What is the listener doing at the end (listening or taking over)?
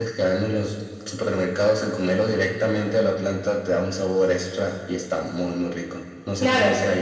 taking over